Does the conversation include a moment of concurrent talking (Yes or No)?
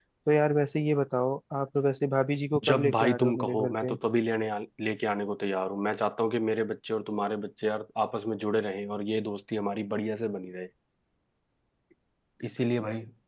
Yes